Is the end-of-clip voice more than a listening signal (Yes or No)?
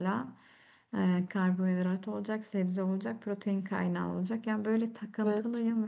No